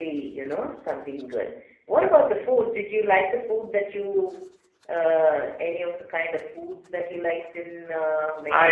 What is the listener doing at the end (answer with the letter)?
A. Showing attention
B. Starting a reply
B